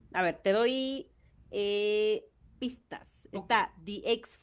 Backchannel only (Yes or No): Yes